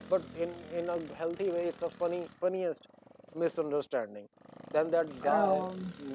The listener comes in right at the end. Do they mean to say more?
No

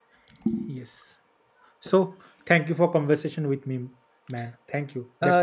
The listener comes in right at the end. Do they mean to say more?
Yes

